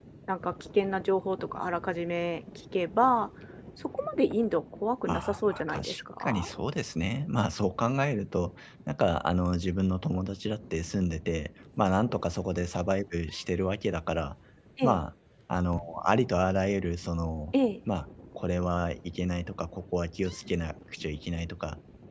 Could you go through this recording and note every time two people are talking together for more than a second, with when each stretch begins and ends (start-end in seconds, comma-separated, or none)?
5.1-6.4